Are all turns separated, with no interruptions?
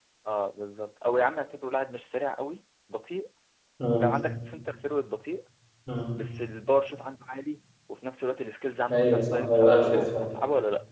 No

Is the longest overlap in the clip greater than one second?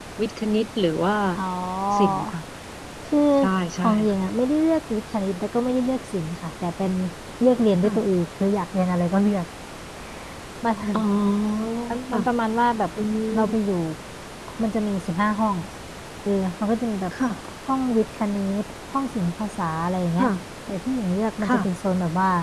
No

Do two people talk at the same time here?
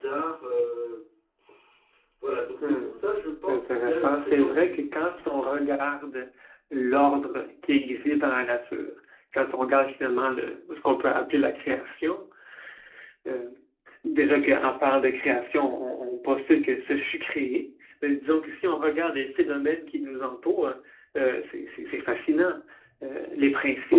Yes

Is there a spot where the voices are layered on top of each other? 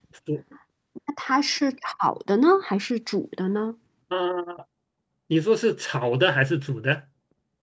No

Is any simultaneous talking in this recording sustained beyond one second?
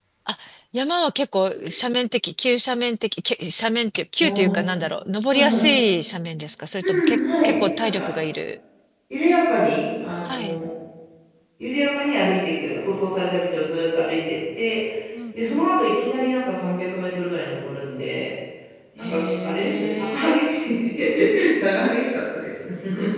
Yes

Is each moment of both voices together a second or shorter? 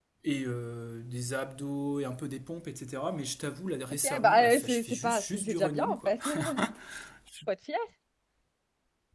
No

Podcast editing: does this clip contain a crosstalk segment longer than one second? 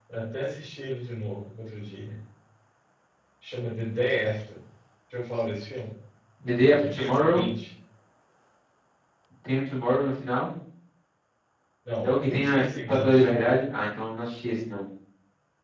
Yes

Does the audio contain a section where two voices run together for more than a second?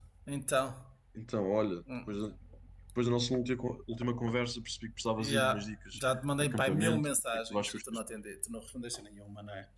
Yes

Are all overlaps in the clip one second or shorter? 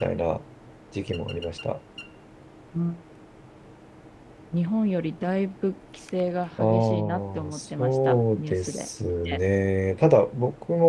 No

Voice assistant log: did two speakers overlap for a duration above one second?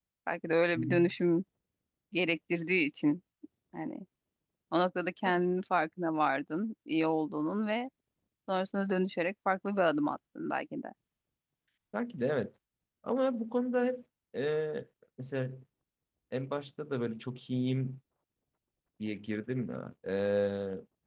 No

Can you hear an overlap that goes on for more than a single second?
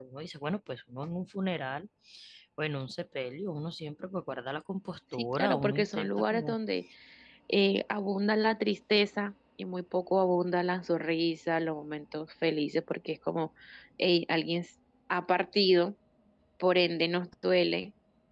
Yes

